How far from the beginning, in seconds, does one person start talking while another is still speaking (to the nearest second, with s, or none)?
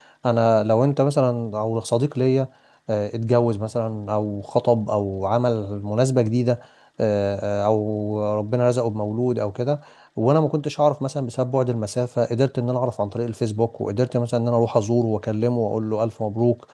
none